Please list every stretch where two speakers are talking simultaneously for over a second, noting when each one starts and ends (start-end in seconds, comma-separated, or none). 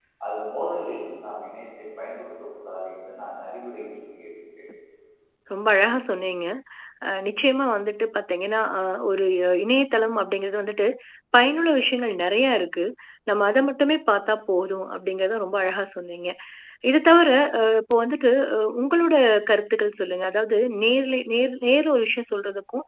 none